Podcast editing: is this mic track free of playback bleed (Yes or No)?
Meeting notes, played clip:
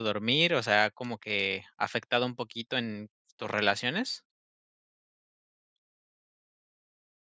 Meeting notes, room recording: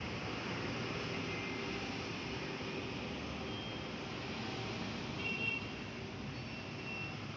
Yes